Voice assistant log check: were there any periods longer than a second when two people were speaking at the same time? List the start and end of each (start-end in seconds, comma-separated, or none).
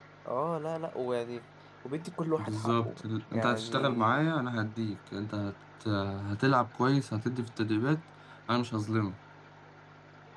2.4-4.2